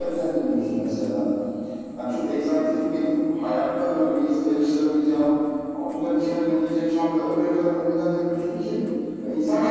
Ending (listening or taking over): taking over